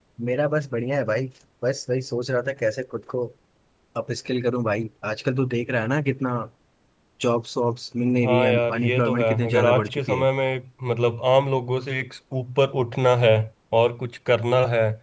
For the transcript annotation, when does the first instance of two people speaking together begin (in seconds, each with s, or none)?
8.2 s